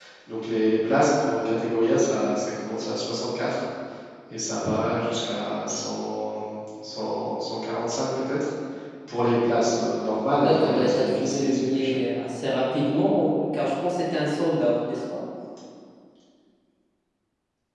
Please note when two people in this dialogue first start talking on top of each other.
10 s

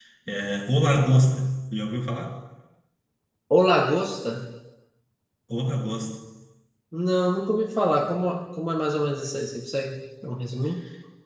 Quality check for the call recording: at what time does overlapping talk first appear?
none

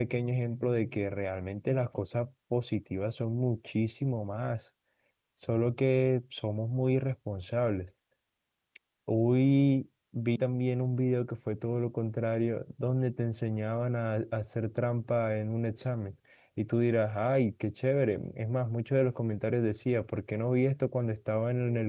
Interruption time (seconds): none

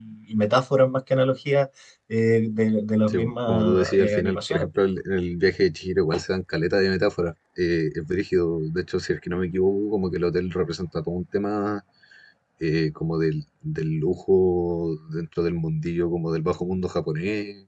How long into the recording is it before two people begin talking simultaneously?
3 s

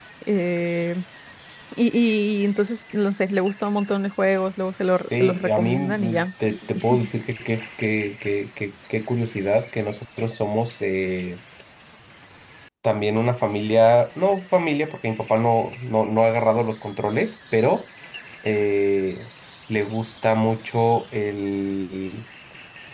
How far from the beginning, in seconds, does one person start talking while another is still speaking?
5 s

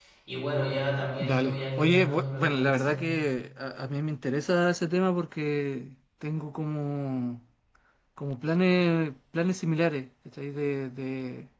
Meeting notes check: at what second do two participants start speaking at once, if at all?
1 s

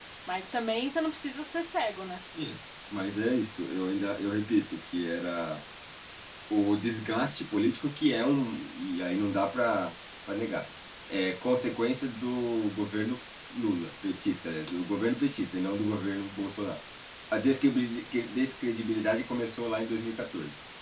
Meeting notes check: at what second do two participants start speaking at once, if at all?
none

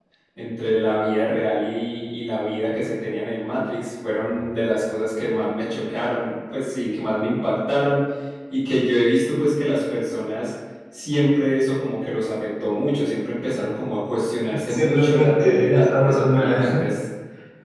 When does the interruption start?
14 s

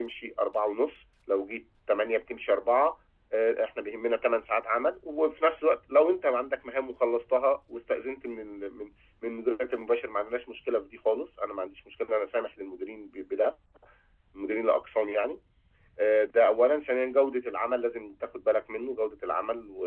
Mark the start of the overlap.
none

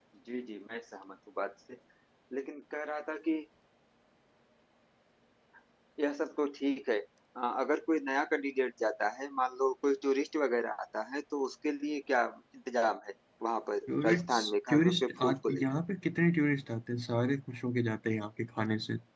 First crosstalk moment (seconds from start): 14 s

